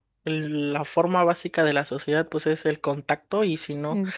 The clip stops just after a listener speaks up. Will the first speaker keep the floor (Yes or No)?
Yes